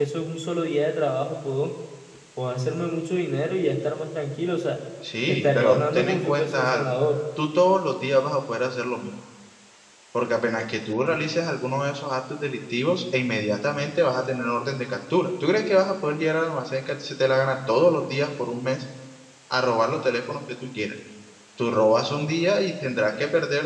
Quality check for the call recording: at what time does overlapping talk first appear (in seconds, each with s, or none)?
5.3 s